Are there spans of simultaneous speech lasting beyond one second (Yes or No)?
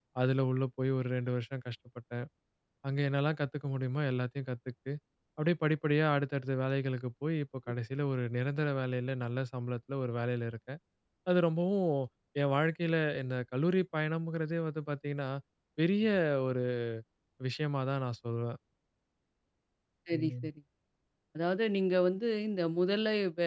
No